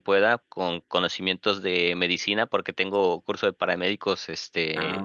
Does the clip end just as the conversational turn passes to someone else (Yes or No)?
No